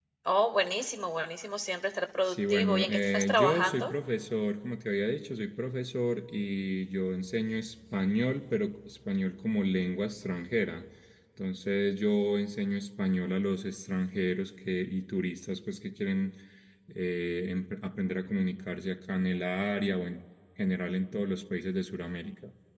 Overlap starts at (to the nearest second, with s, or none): 2 s